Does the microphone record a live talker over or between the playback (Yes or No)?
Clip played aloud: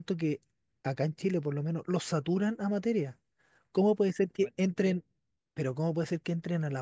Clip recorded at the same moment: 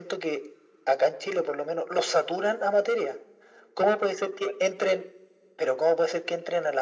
No